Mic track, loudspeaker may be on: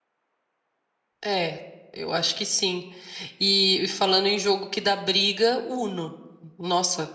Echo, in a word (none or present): none